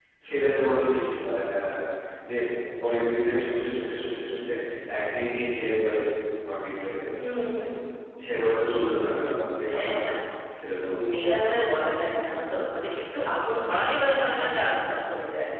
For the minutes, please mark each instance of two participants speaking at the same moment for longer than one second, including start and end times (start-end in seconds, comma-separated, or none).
none